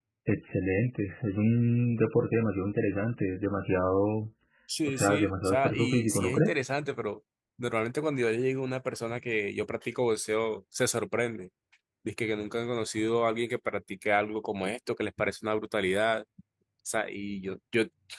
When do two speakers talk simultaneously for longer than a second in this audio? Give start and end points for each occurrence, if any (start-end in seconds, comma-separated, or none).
4.8-6.6